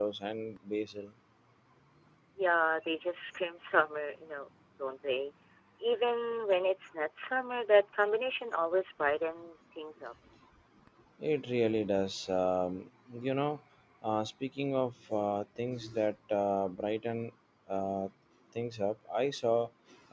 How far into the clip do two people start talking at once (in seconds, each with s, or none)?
none